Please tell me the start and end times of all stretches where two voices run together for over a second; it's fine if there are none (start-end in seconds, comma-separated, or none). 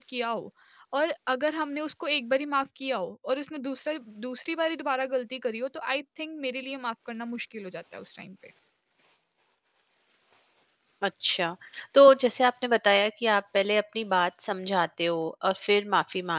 none